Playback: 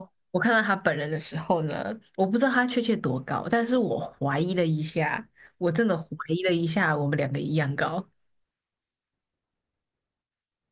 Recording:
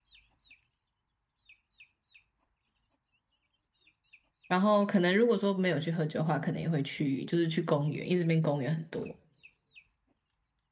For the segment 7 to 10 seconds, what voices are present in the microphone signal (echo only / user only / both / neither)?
user only